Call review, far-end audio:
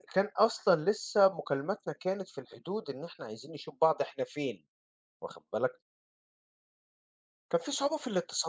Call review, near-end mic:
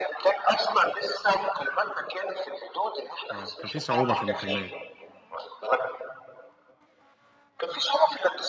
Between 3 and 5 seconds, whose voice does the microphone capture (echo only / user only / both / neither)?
both